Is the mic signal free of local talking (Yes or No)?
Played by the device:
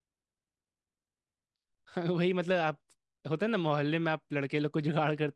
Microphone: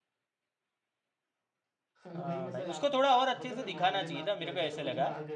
No